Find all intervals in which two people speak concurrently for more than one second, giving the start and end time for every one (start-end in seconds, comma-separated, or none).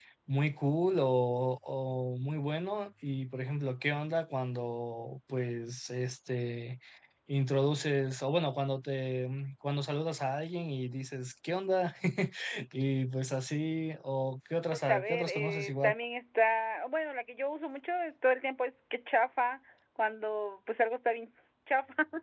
14.7-15.9